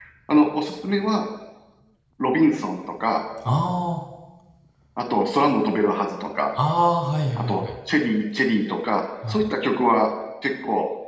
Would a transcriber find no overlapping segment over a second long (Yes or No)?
Yes